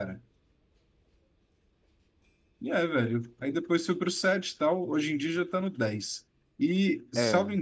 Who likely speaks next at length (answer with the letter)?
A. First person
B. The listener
A